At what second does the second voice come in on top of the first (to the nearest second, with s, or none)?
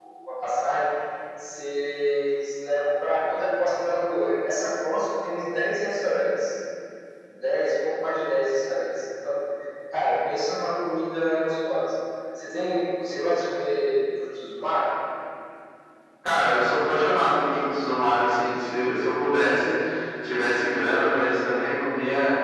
none